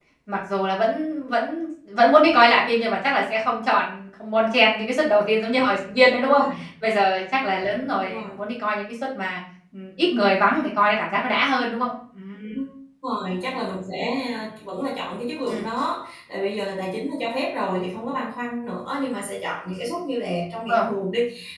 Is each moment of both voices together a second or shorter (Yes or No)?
Yes